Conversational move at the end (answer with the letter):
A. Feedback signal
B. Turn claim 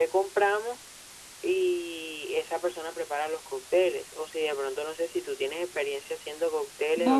B